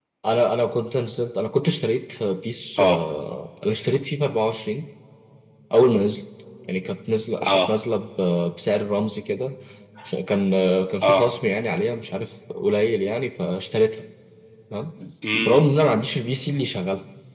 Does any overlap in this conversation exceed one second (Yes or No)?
No